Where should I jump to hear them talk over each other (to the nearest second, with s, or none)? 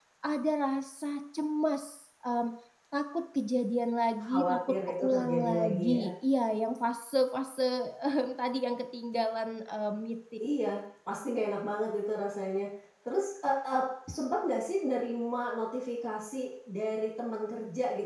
4 s